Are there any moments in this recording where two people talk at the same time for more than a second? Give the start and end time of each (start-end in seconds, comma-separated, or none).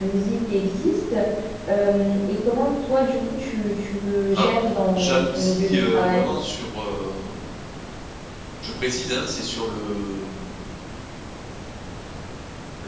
4.9-6.2